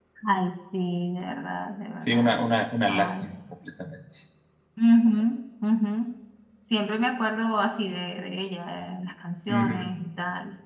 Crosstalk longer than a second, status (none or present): none